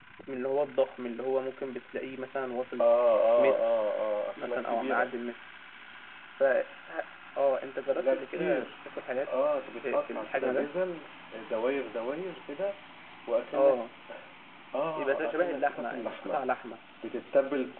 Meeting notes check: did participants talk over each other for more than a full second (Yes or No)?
Yes